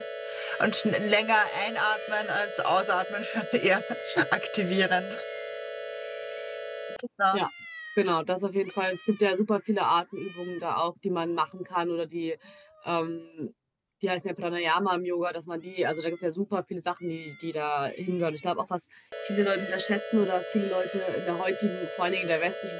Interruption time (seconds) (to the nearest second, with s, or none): none